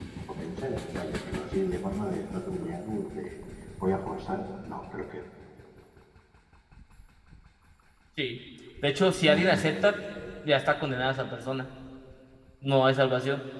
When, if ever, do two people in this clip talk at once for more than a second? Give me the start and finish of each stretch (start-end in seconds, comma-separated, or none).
none